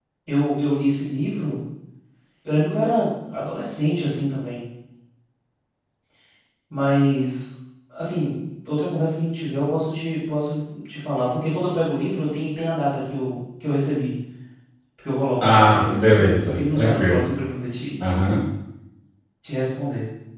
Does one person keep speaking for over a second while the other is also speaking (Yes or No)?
Yes